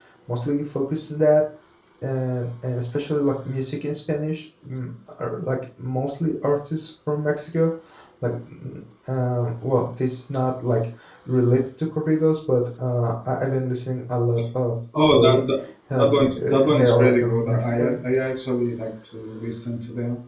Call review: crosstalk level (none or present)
present